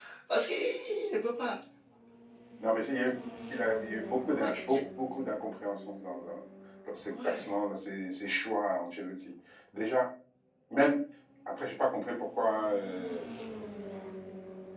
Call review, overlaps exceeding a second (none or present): none